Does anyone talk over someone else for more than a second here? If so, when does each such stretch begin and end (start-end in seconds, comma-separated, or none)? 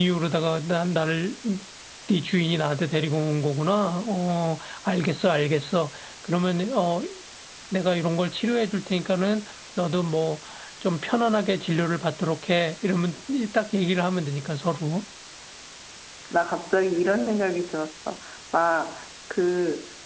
none